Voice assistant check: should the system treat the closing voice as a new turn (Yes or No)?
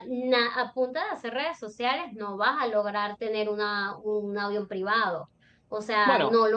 No